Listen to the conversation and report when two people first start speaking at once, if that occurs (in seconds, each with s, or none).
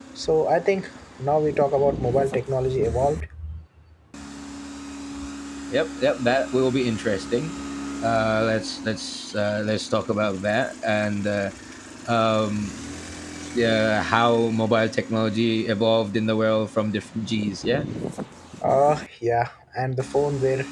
none